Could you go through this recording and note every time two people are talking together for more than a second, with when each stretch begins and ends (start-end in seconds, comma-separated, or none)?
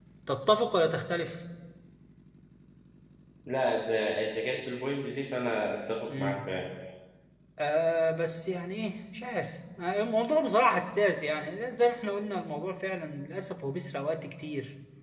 none